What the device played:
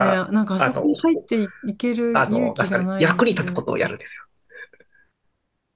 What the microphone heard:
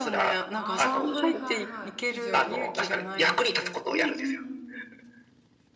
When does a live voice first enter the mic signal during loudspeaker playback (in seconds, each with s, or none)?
0.5 s